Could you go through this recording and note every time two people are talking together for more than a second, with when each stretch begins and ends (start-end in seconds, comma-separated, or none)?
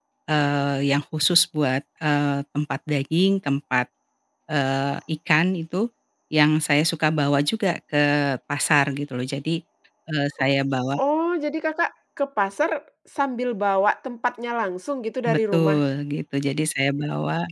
none